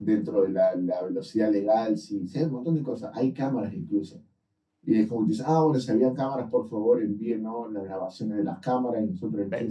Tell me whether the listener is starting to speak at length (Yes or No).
No